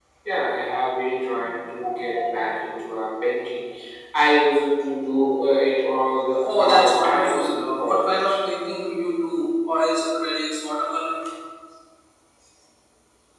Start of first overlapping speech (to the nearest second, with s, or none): 6 s